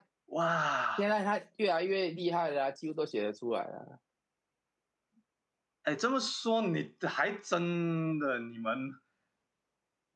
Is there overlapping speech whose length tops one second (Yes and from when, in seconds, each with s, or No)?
No